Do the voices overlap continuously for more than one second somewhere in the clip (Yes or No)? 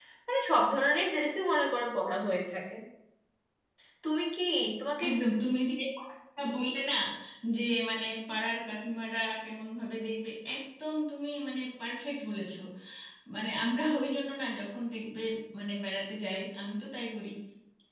No